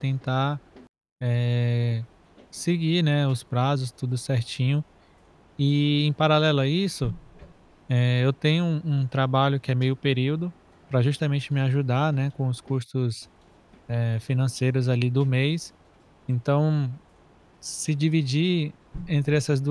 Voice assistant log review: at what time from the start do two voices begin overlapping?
none

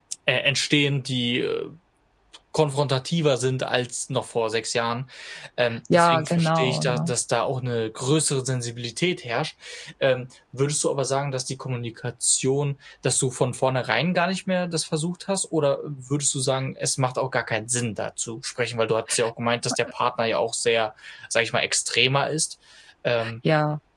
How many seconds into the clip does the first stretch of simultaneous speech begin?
5.9 s

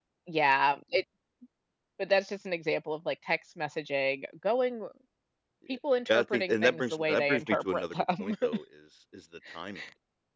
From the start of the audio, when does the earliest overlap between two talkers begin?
6.2 s

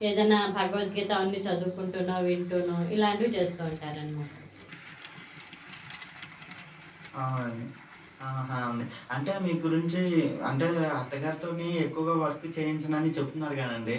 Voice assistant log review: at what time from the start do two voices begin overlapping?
none

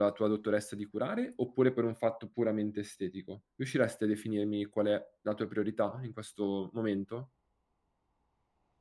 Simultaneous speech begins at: none

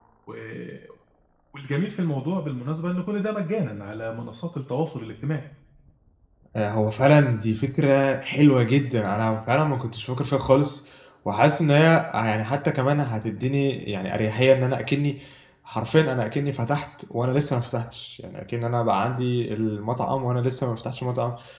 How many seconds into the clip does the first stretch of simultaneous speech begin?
none

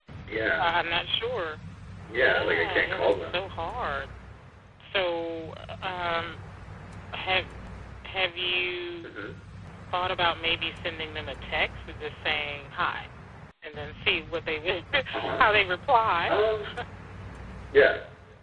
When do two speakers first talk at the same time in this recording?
2.1 s

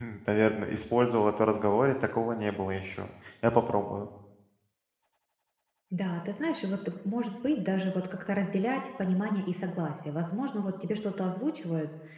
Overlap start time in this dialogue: none

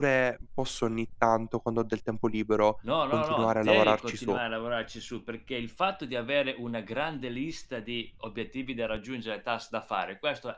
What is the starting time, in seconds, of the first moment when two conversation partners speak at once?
3.1 s

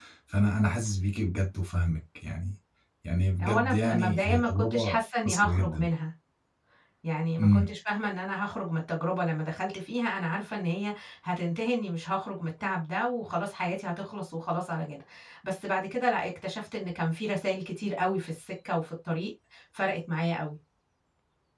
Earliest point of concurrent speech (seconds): 3.4 s

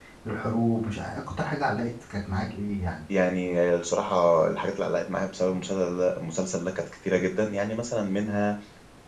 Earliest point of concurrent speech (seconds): none

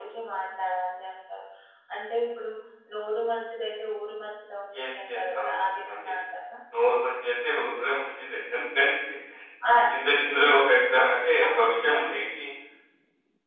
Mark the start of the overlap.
4.8 s

